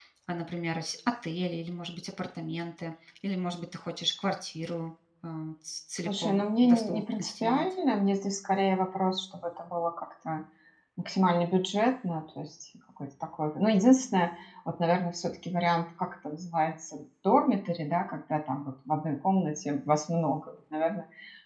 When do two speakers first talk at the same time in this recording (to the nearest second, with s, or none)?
6 s